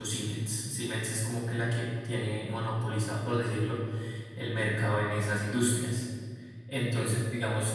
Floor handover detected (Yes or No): No